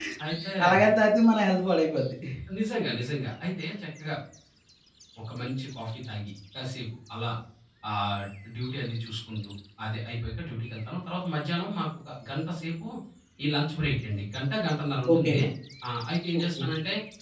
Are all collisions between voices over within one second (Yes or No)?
Yes